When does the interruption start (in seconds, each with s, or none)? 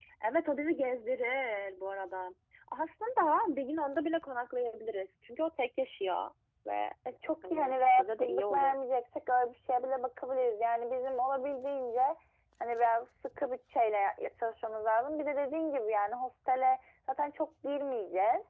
7.4 s